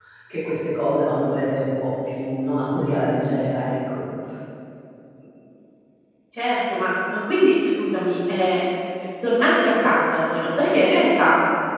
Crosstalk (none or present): none